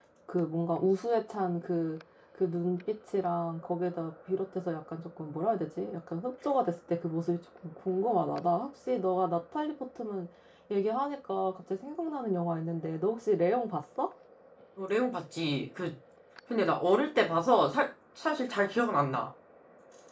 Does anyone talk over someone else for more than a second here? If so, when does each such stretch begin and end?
none

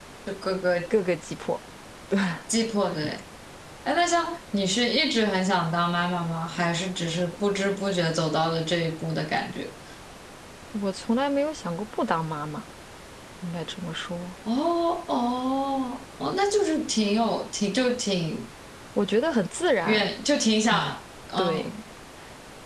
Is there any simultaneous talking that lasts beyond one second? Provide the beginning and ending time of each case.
none

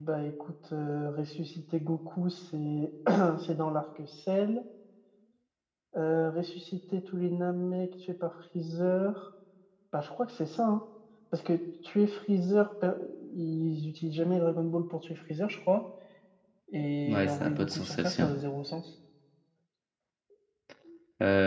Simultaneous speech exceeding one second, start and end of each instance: 17.0-18.3

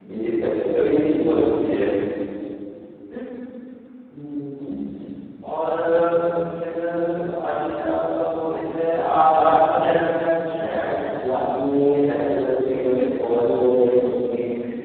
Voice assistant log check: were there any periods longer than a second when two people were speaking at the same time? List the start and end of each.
none

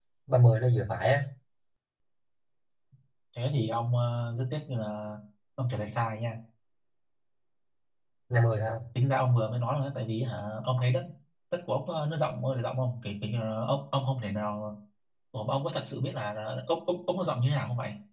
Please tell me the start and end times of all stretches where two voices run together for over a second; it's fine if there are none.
none

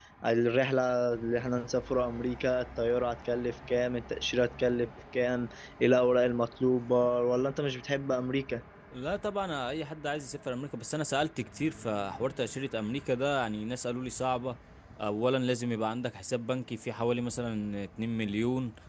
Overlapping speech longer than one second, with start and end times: none

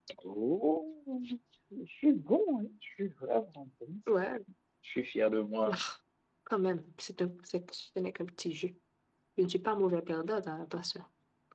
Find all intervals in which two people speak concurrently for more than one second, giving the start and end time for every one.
none

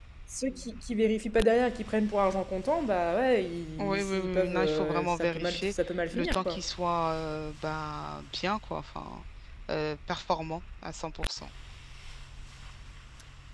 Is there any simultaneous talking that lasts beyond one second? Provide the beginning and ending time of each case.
3.8-5.7

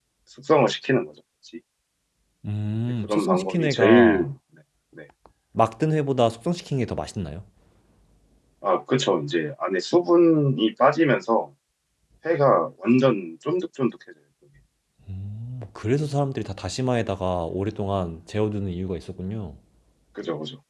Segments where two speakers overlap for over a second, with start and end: 3.0-4.3

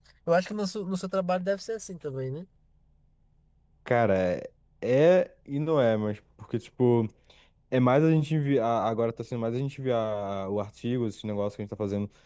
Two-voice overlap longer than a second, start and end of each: none

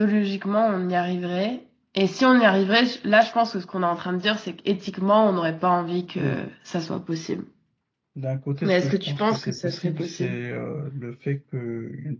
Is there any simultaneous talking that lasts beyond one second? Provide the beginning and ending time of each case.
8.6-10.4

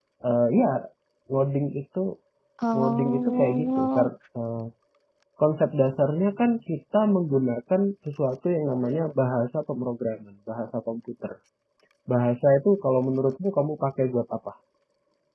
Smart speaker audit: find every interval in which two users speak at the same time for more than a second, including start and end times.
2.7-4.1

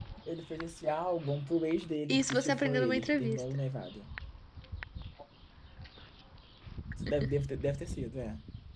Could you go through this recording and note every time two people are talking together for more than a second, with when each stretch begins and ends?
2.1-3.4

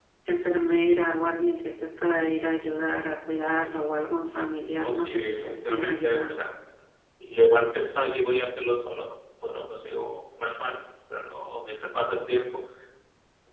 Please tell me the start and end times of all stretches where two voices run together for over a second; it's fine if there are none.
4.8-6.4

